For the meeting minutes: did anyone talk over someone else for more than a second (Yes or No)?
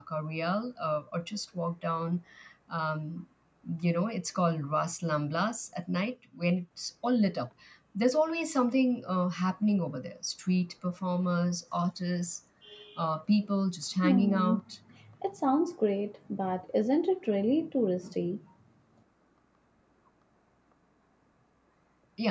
No